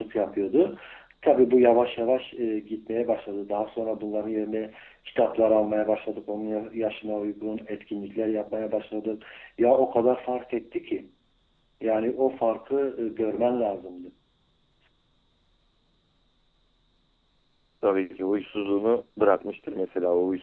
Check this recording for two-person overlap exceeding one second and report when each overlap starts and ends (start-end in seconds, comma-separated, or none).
none